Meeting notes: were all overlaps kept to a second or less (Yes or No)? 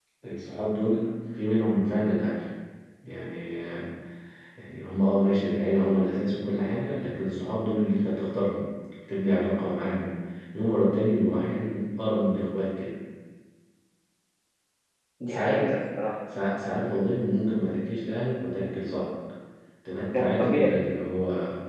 Yes